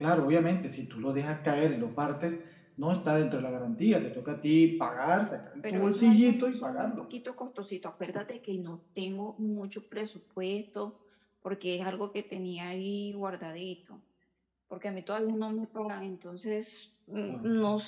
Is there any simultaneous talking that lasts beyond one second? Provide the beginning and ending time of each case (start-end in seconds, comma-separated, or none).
5.6-7.0